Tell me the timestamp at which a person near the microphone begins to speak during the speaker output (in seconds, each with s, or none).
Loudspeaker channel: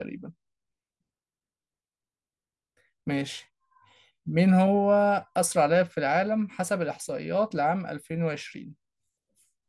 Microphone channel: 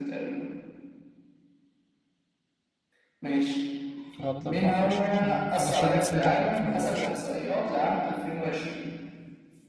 4.2 s